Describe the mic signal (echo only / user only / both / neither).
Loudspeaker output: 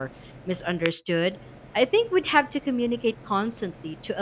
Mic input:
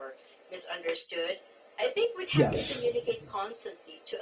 both